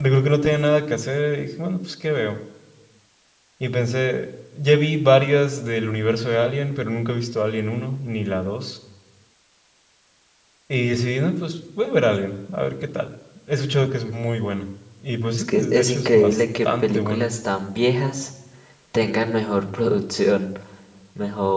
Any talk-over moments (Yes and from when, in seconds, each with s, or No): Yes, from 15.3 s